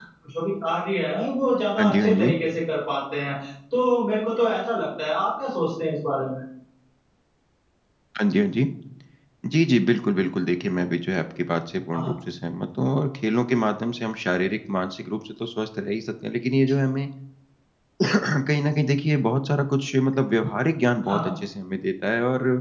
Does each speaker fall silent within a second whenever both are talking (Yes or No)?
Yes